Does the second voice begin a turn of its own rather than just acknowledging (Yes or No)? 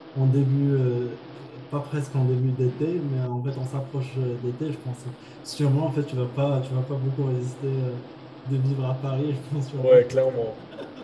Yes